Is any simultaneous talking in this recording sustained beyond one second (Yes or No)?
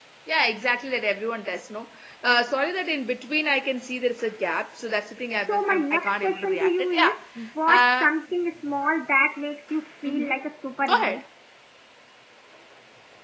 Yes